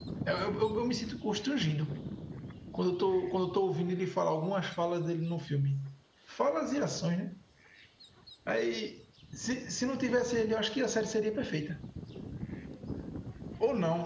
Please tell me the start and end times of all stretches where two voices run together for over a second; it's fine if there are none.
none

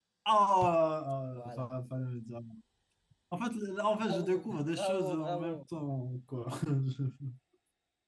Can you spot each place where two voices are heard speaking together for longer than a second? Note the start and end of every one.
4.0-5.6

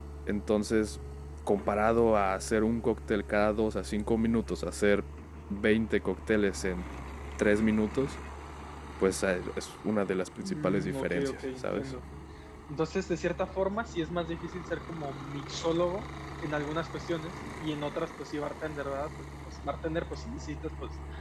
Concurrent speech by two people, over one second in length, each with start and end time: 10.4-11.9

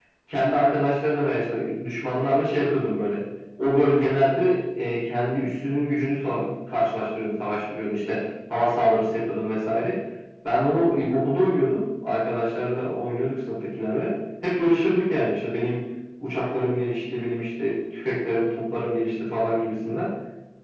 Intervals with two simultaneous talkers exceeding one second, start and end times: none

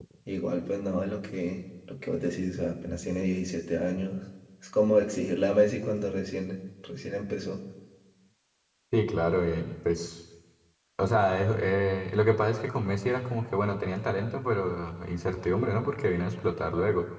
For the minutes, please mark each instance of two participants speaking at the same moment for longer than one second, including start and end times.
none

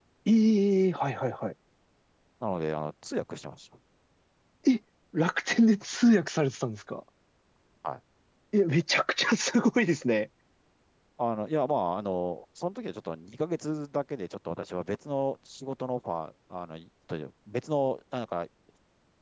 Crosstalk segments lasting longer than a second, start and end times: none

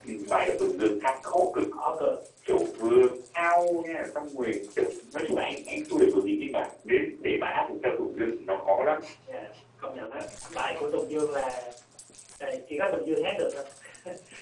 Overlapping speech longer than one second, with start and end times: none

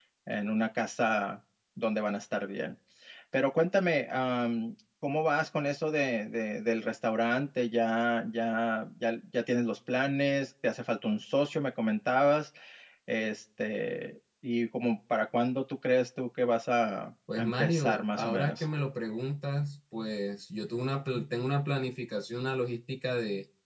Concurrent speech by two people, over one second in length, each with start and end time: 17.4-18.6

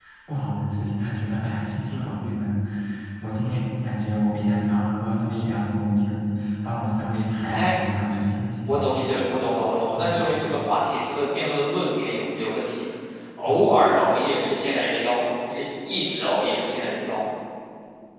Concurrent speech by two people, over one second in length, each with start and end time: none

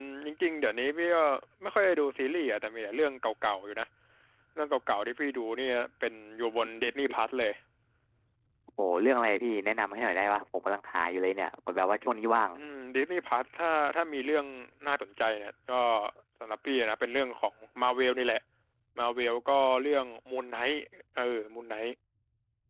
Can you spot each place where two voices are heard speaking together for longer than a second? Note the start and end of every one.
none

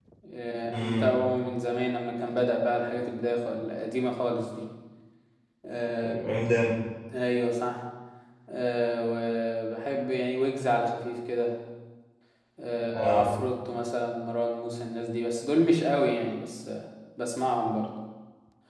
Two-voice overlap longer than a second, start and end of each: none

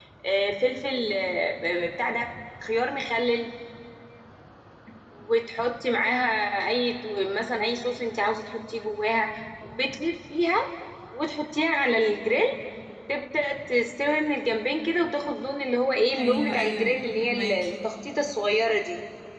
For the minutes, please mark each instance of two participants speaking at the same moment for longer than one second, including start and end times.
16.2-17.7

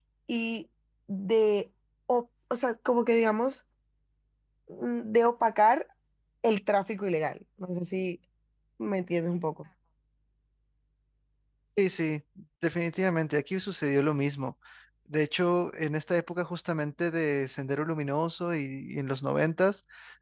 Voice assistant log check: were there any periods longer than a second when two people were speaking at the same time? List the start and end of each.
none

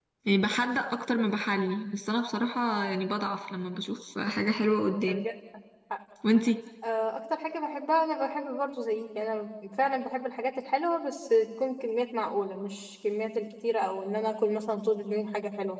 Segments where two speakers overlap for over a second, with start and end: none

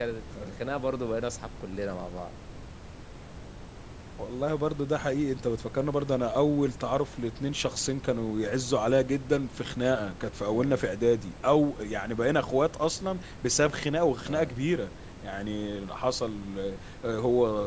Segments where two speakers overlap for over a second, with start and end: none

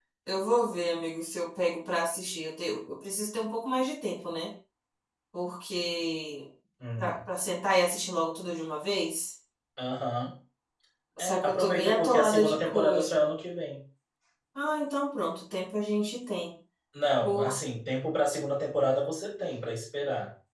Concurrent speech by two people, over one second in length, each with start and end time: 11.2-13.2

